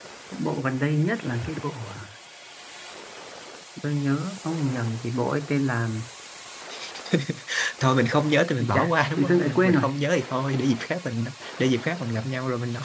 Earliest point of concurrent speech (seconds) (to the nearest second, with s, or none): 9 s